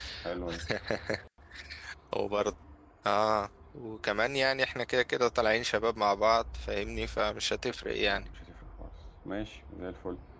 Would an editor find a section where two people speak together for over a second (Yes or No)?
No